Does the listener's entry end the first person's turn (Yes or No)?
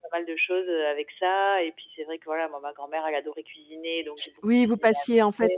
Yes